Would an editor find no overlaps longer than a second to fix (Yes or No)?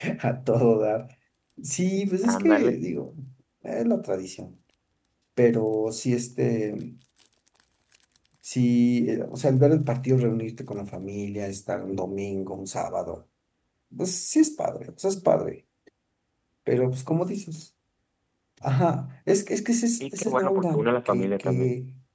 No